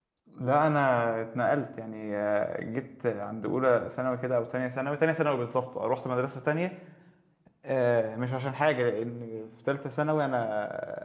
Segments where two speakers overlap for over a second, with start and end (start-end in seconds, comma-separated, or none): none